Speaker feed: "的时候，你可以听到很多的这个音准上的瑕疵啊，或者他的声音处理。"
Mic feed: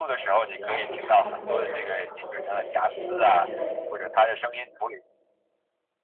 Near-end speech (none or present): present